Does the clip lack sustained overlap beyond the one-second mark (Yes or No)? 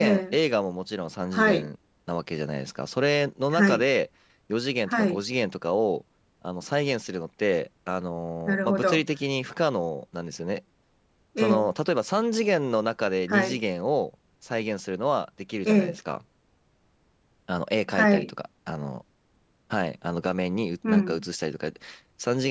Yes